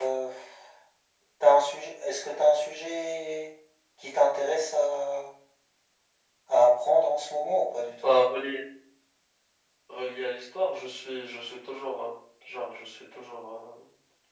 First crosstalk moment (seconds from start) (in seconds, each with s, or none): none